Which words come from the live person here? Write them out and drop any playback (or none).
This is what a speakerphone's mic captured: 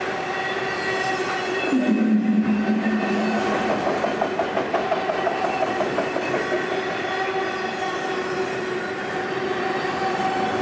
हम्म,